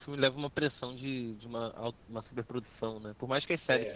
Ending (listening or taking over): listening